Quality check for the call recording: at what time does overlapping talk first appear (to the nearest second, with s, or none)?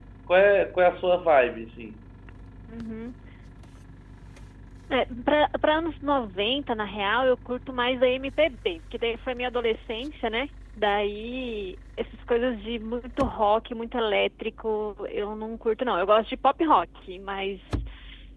none